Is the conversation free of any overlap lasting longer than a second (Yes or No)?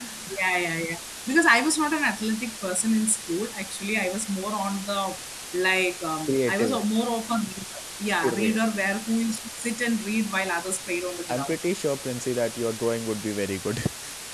Yes